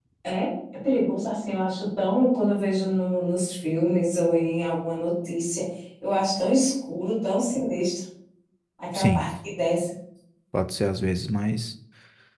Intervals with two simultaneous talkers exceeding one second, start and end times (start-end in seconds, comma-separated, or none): none